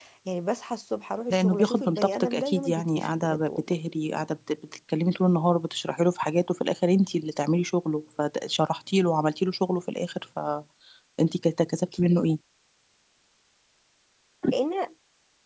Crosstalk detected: Yes, from 1.3 s

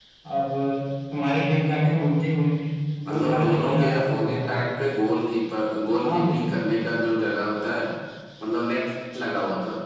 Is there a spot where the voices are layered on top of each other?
Yes, from 3.1 s

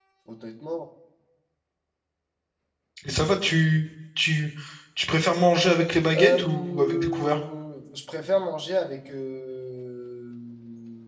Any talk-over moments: Yes, from 6.1 s

